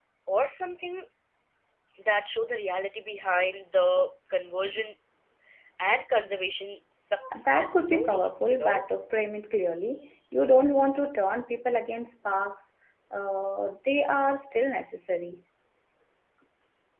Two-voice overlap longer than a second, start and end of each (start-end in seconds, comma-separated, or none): 7.4-8.8